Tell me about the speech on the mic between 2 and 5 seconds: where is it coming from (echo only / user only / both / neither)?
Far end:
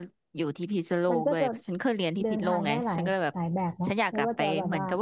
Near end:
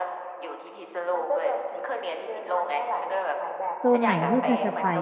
both